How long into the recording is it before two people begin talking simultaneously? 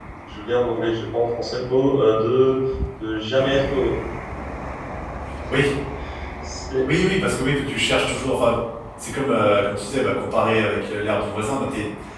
none

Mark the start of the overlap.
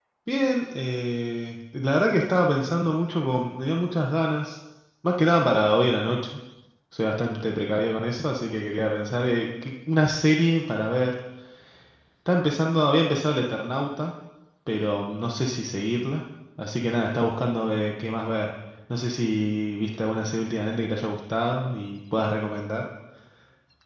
none

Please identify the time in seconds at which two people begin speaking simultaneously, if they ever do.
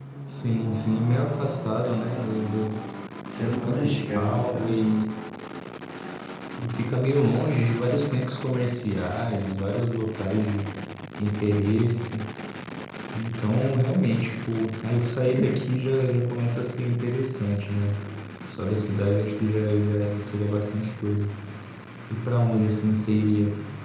3.4 s

